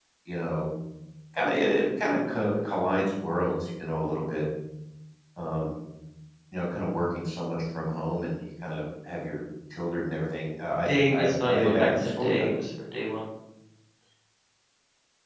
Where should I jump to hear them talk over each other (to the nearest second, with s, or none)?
11 s